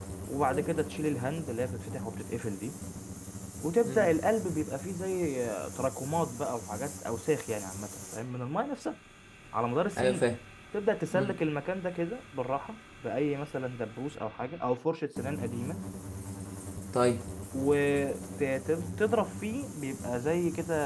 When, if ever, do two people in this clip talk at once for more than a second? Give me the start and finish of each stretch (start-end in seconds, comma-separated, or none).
none